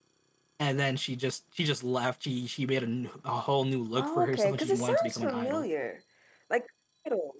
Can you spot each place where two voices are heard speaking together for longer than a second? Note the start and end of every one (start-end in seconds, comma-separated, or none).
4.0-5.6